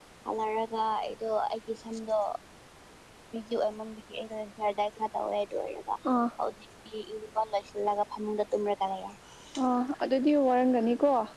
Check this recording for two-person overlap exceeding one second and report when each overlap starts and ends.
none

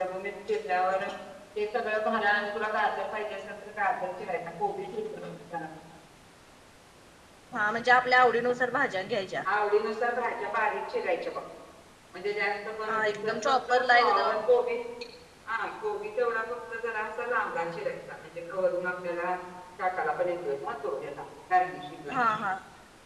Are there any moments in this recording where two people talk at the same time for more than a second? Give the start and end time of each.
12.9-14.4

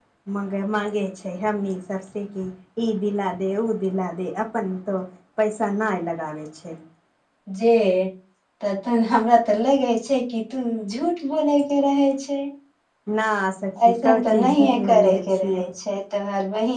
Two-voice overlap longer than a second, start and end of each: 13.9-15.6

